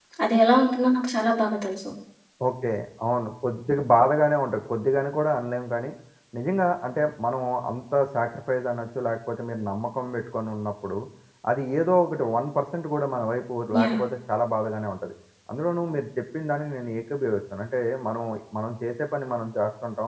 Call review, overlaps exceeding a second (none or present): none